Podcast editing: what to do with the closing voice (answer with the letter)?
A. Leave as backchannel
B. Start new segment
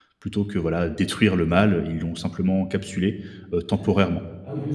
B